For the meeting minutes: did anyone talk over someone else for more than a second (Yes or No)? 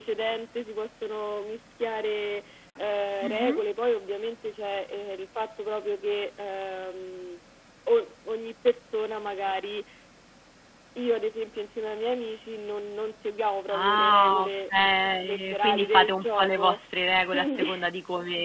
Yes